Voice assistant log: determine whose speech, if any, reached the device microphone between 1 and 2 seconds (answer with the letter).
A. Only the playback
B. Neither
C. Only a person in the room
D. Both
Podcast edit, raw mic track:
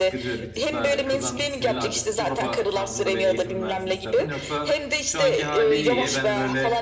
D